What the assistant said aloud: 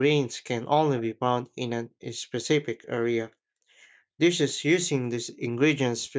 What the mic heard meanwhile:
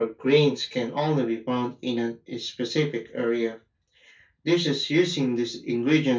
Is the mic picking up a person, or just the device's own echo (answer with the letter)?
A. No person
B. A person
A